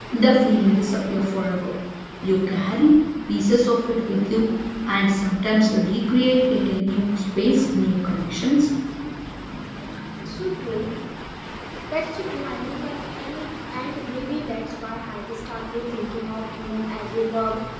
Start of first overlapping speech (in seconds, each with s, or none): none